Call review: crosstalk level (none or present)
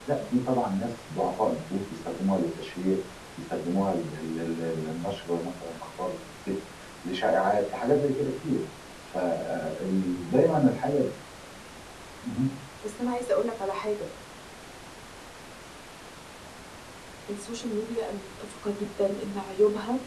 none